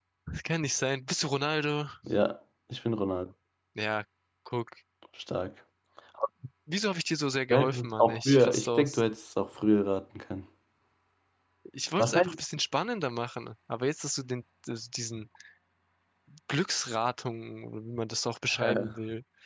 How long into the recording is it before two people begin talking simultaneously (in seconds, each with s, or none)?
7.5 s